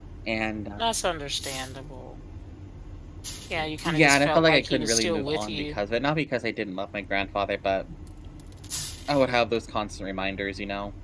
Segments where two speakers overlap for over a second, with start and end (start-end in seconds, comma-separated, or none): 3.9-5.8